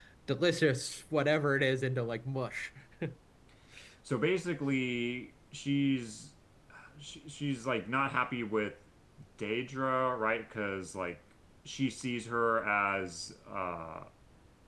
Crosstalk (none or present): none